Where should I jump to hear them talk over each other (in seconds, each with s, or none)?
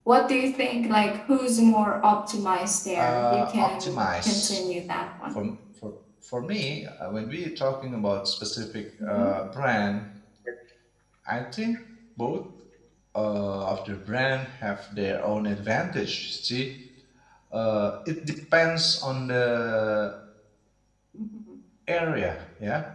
3.0 s